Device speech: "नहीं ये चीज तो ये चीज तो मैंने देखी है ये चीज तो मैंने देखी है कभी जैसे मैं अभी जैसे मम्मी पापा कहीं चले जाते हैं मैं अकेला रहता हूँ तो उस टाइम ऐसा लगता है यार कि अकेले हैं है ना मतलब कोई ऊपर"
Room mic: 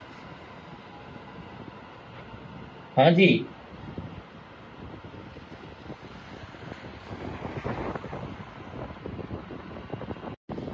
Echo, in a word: none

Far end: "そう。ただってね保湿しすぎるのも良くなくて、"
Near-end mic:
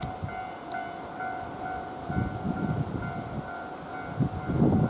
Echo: none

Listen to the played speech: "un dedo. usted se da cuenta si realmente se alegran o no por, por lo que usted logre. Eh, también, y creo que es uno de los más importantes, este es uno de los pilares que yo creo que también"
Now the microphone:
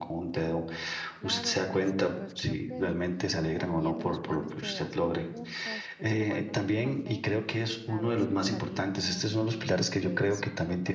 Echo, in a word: present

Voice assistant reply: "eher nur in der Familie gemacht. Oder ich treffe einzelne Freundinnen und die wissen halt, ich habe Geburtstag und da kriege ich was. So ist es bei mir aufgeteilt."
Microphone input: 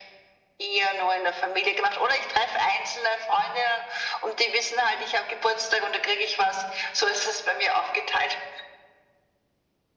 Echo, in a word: present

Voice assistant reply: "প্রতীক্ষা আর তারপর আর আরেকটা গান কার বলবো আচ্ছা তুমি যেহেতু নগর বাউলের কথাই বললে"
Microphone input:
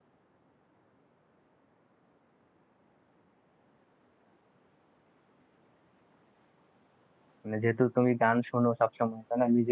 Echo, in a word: none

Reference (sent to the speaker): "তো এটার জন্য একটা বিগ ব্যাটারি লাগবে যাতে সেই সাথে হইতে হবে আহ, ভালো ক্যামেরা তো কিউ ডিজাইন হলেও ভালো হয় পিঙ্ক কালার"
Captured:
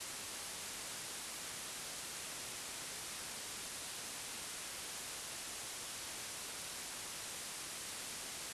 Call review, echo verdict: none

